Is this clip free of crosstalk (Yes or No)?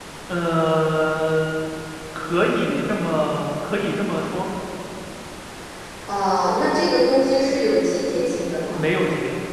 Yes